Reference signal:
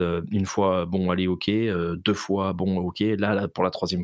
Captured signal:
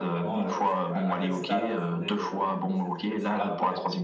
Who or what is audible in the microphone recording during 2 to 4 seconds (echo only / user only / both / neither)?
both